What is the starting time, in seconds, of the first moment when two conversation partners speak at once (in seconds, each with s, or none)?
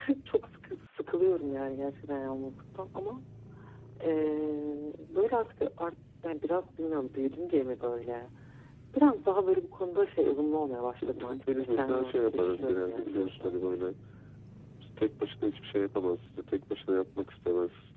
11.0 s